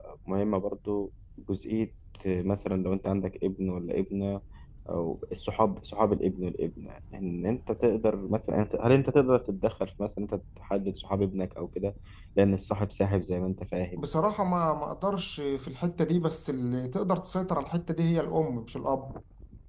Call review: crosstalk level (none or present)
none